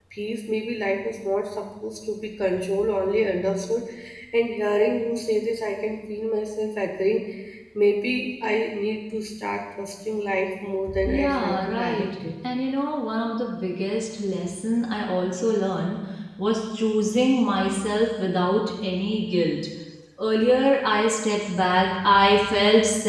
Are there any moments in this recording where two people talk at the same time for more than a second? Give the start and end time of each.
11.0-12.3

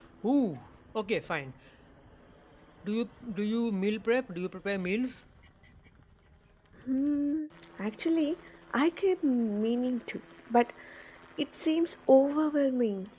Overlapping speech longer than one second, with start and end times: none

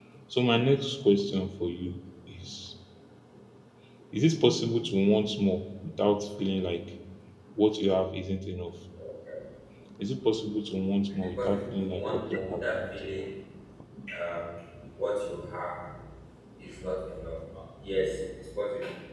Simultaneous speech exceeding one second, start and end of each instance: 11.1-13.3

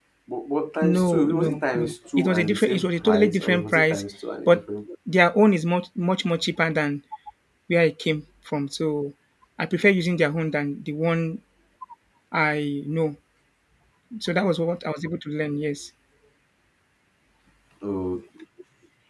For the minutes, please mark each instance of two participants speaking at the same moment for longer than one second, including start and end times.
1.0-4.0

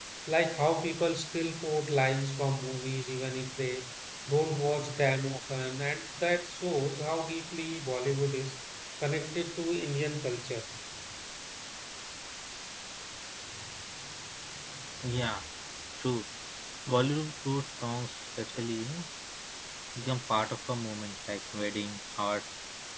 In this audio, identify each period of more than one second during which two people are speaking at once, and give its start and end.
none

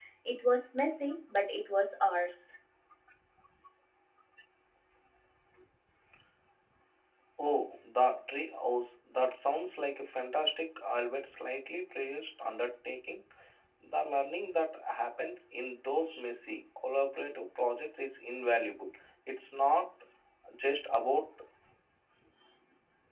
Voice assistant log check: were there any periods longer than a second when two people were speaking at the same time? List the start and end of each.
none

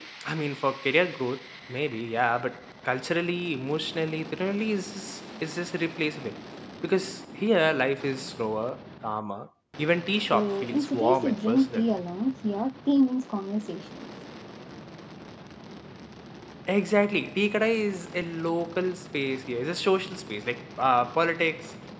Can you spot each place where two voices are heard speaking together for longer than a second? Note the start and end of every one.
10.3-11.8

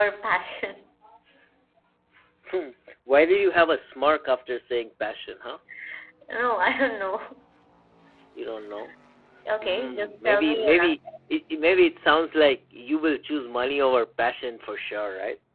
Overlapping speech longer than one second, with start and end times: 9.6-11.0

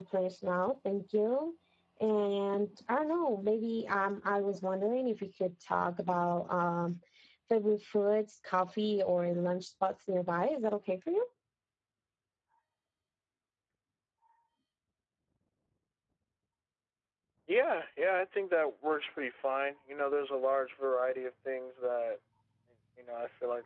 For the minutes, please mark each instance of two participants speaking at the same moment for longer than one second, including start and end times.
none

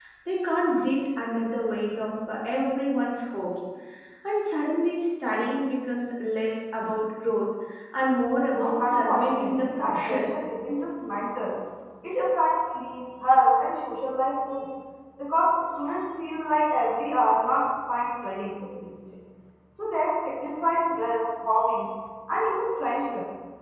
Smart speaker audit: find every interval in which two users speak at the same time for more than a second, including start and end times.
8.6-10.3

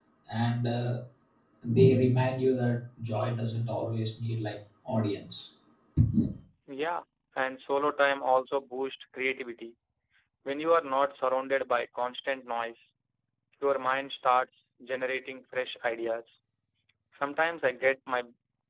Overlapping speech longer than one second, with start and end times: none

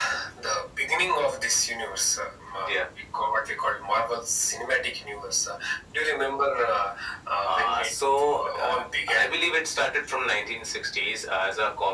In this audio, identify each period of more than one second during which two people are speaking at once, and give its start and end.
7.4-8.7

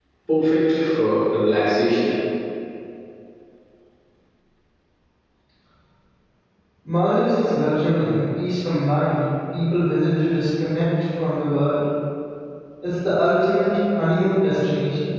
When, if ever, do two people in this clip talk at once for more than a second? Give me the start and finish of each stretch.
none

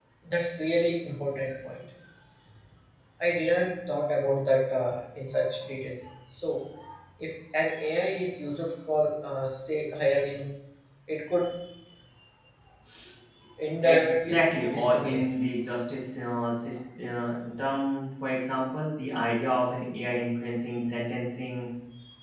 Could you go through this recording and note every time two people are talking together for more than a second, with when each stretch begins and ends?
13.8-15.3

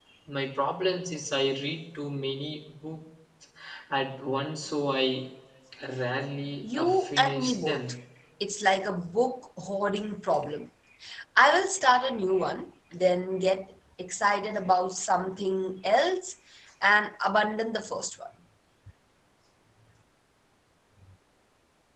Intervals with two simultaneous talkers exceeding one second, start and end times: 6.6-7.9

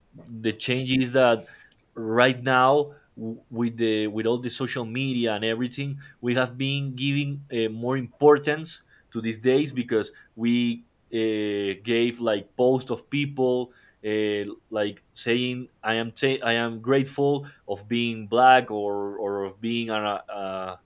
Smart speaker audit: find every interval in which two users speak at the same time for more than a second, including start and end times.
none

